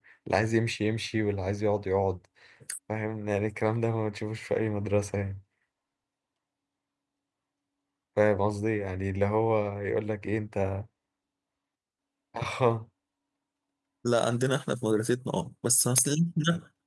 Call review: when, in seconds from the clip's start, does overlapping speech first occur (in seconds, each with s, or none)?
none